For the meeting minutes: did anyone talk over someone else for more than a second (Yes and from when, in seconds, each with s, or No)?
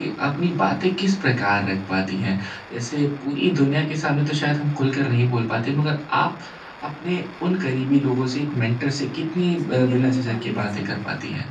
Yes, from 9.8 s